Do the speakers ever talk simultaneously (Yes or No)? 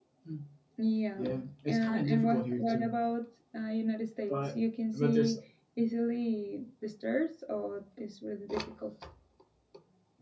Yes